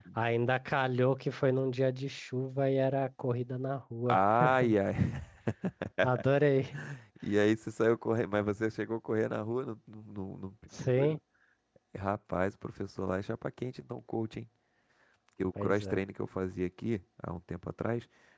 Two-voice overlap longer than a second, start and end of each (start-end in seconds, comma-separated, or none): none